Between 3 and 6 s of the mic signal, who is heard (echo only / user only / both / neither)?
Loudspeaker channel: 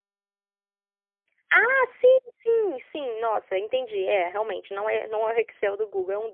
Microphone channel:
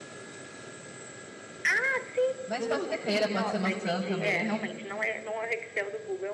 both